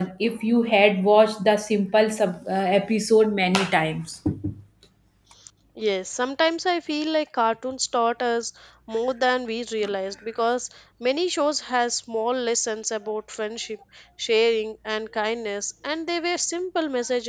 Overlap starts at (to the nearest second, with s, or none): none